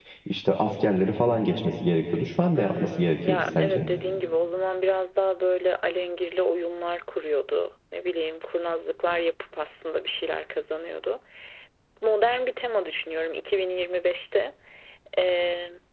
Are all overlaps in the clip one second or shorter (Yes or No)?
No